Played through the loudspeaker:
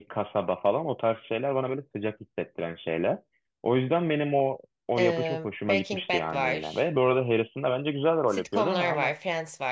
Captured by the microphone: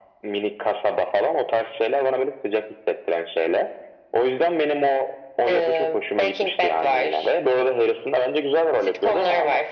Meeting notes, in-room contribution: none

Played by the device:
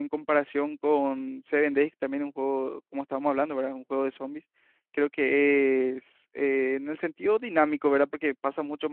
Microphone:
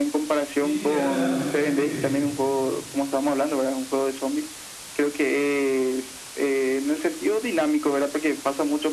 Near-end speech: present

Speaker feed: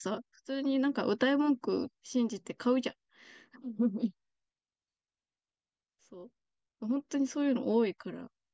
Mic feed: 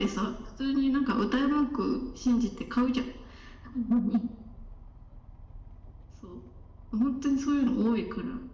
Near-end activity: none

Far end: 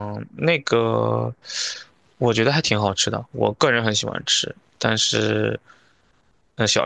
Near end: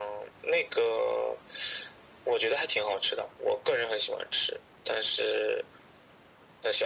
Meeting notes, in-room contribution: none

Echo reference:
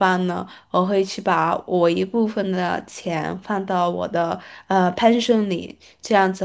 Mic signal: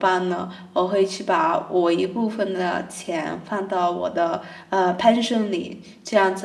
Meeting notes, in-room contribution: none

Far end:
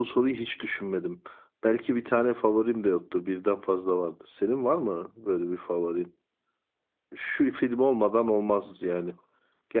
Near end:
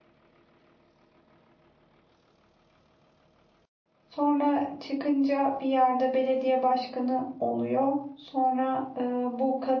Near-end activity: present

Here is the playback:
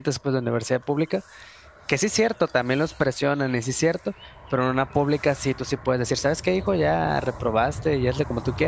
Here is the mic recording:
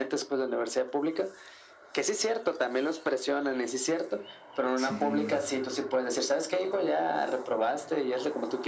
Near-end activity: present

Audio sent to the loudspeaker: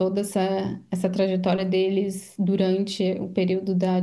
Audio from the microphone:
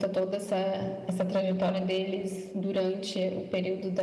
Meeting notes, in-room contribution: none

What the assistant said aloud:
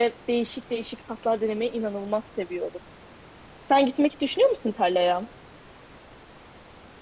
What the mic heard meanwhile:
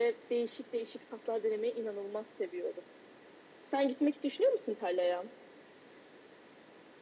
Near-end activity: none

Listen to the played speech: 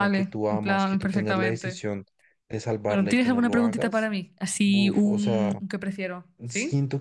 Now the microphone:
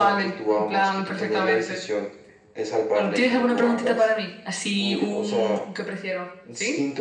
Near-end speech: none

